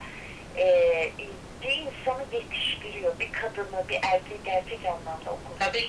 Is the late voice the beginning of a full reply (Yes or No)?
Yes